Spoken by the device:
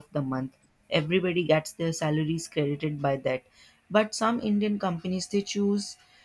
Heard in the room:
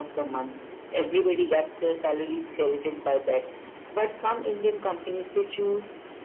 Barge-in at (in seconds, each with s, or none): none